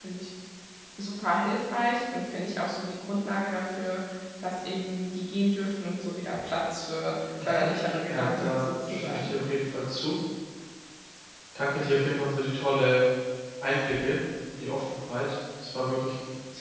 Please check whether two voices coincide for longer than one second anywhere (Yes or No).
Yes